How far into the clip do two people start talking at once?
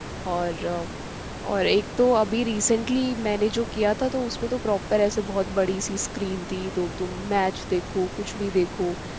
none

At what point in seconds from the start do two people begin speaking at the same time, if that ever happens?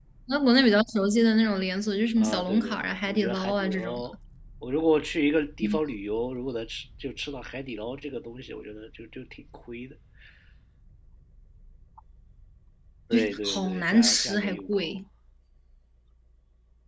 2 s

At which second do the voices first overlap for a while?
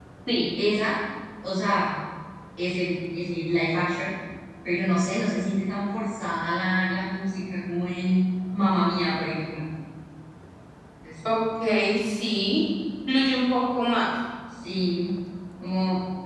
none

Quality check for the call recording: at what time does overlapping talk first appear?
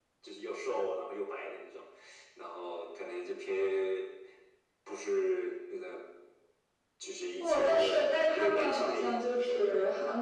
7 s

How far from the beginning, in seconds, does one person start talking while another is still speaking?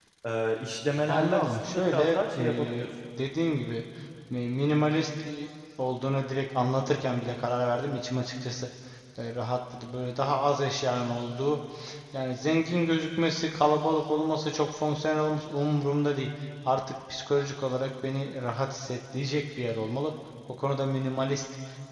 1 s

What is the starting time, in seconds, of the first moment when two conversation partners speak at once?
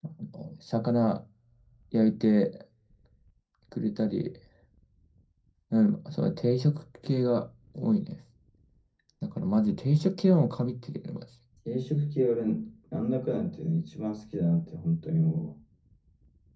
none

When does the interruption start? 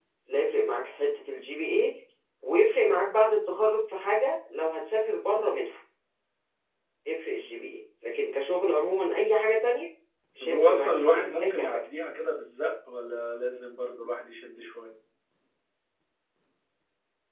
10 s

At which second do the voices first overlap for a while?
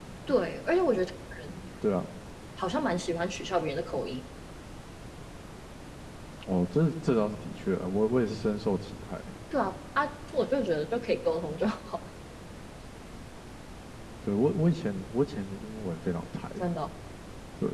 none

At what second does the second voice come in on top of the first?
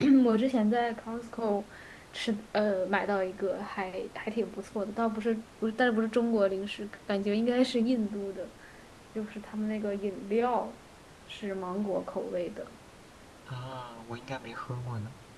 none

